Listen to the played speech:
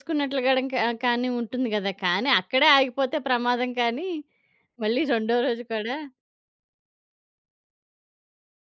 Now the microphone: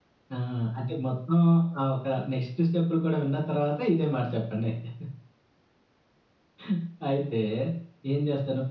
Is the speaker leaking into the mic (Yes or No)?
No